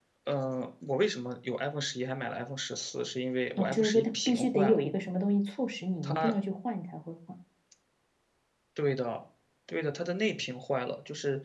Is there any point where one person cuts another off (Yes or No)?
Yes